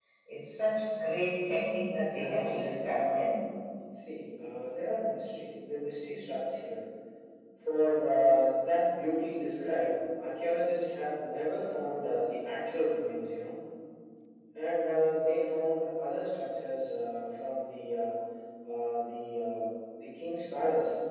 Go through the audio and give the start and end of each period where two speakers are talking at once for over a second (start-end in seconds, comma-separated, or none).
2.0-3.4